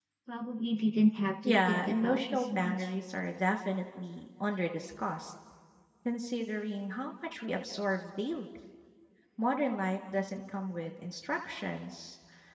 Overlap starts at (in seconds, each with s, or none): 1.4 s